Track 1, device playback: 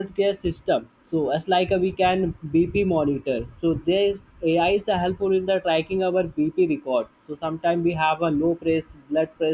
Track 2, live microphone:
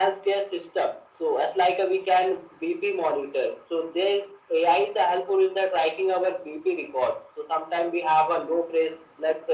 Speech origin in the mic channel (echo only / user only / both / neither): echo only